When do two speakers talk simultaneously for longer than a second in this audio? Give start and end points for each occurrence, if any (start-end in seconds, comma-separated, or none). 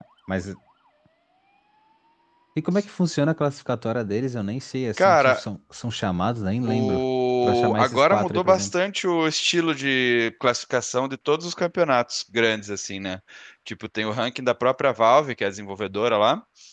7.4-8.7